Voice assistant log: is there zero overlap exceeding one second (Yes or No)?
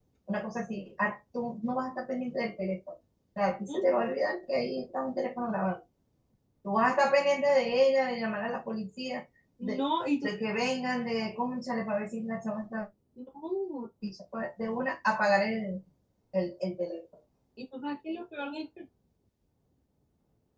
Yes